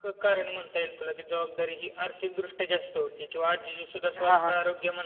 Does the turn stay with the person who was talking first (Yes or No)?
Yes